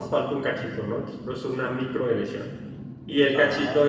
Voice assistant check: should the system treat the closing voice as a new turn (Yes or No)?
No